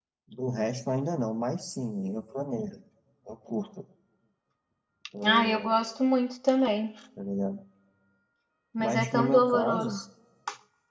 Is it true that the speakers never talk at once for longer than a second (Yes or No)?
No